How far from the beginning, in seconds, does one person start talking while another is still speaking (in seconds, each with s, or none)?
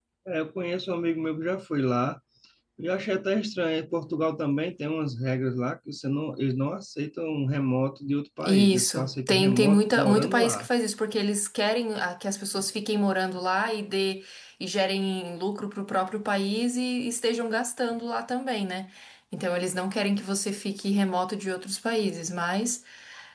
8.4 s